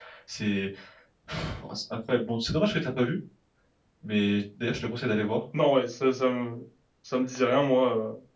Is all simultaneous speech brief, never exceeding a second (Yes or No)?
Yes